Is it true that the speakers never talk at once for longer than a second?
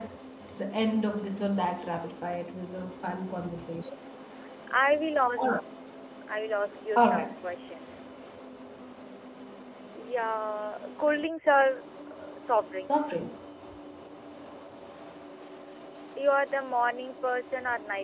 Yes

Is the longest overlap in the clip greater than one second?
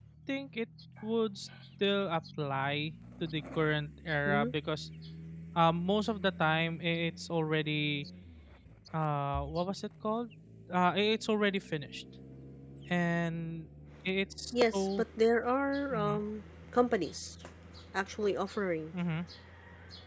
No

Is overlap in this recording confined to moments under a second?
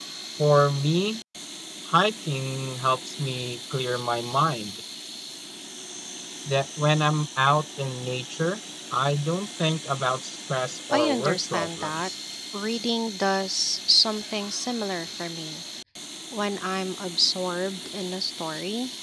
No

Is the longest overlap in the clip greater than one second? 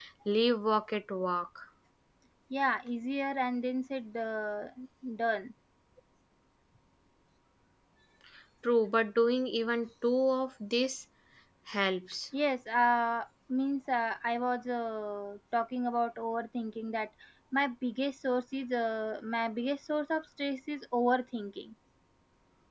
No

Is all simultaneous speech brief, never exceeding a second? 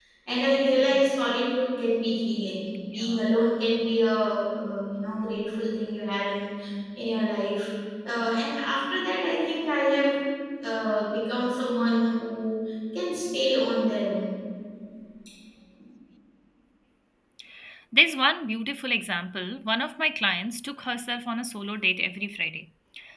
Yes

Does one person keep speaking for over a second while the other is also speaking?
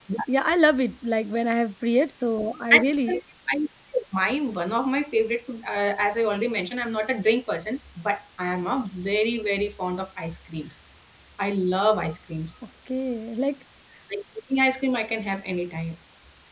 No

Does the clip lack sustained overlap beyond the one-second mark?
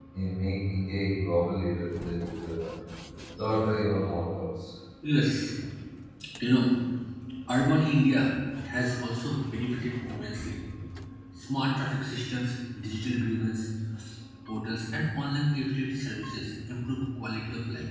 Yes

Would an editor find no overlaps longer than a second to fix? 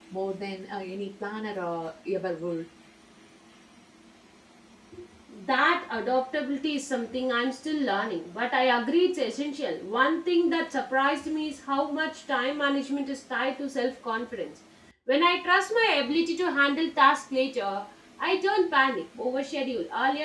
Yes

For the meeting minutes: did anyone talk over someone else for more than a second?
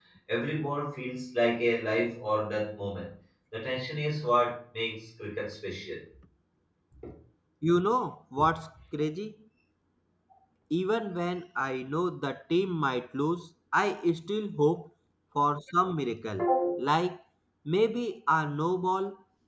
No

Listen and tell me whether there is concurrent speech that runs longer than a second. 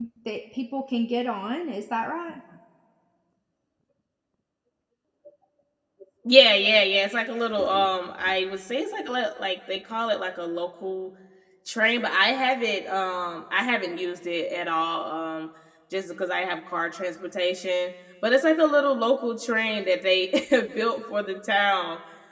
No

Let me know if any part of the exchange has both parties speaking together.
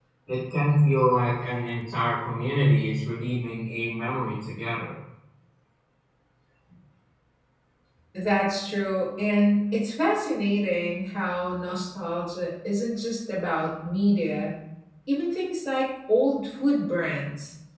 No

